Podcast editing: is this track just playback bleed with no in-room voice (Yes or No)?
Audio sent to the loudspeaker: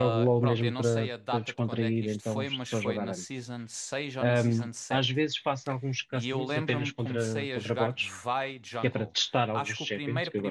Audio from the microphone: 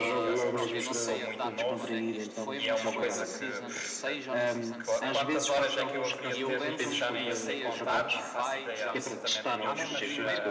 No